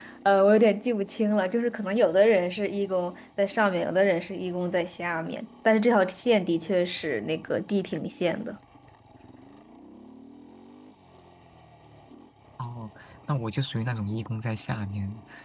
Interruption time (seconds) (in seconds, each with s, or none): none